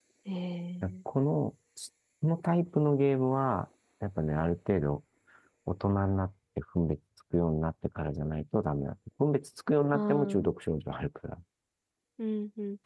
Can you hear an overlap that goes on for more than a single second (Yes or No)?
No